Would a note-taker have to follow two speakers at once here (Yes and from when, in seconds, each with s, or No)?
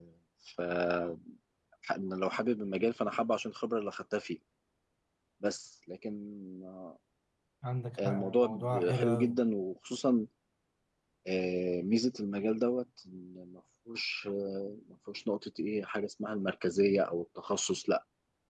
Yes, from 8.0 s